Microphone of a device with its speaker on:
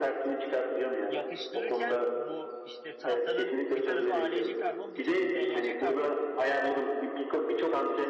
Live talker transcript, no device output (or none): yapıştırırken bu işte tahtanın bir tarafı ALC karbon bir tarafı ZLC karbon.